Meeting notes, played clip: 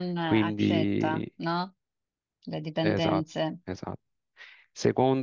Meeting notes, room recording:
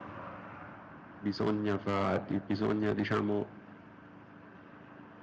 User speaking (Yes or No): Yes